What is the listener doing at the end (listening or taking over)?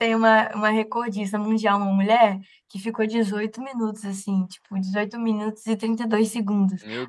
listening